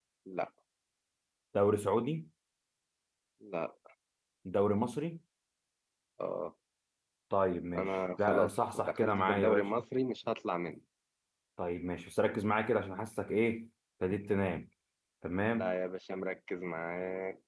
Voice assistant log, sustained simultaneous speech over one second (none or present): present